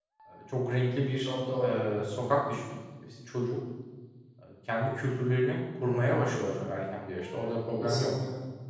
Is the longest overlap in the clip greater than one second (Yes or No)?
No